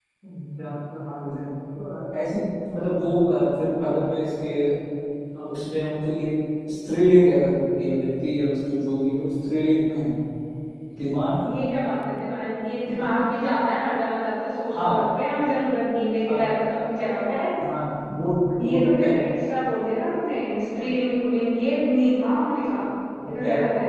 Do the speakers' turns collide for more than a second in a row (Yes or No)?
No